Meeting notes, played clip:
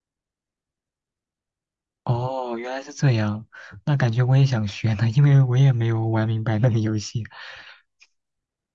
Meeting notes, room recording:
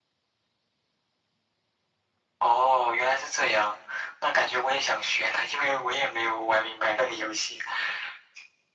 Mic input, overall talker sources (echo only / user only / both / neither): echo only